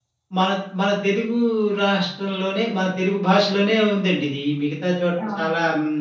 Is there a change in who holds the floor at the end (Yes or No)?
No